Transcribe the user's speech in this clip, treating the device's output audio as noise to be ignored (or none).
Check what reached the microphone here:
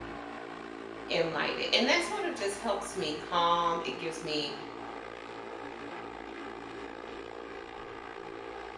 and light it. And that sort of just helps me calm. It gives me,